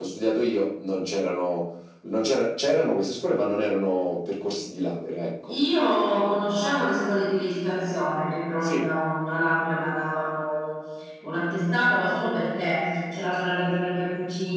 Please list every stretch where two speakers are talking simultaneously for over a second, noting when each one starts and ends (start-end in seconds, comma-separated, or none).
none